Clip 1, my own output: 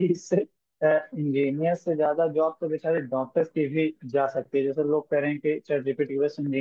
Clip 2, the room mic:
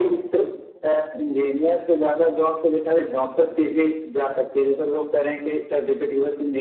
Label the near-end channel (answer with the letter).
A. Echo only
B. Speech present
A